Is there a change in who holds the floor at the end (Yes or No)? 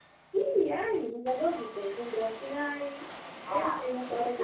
Yes